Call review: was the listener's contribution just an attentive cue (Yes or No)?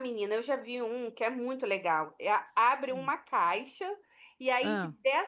Yes